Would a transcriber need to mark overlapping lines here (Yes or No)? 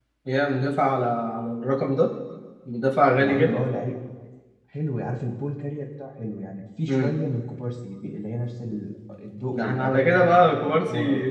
Yes